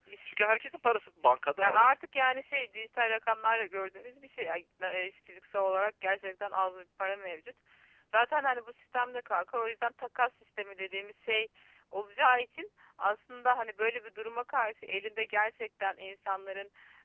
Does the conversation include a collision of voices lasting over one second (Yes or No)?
No